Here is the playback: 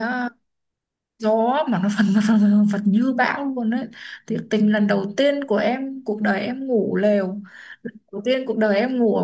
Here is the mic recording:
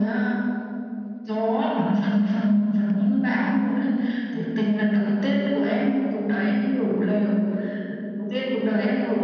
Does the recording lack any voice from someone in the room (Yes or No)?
Yes